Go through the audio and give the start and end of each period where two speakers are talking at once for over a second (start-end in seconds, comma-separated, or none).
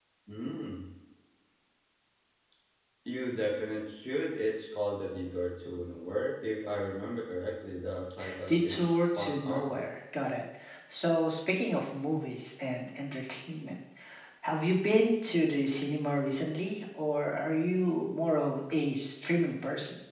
8.5-9.8